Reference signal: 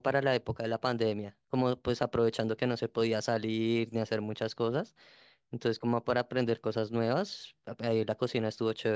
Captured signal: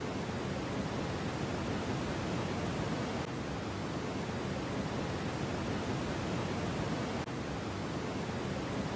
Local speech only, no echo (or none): none